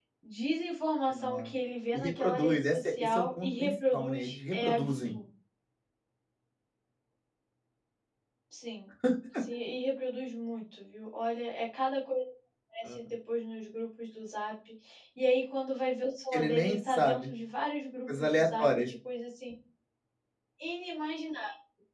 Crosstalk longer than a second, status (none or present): present